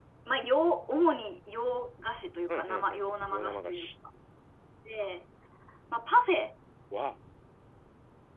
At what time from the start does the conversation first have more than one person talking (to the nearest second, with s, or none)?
2 s